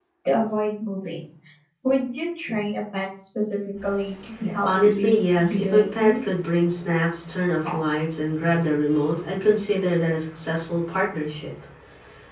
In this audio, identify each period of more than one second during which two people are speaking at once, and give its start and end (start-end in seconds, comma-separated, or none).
4.6-6.2